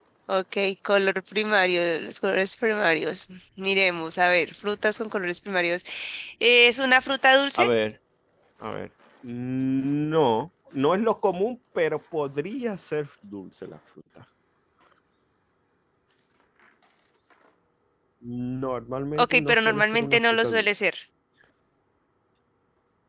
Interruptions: present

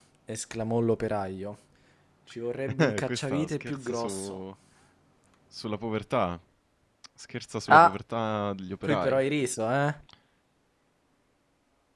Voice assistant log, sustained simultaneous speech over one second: present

